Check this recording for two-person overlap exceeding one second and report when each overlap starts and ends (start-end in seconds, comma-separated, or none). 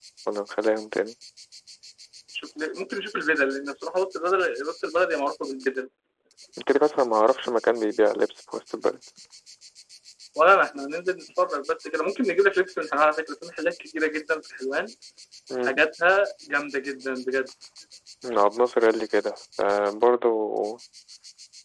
none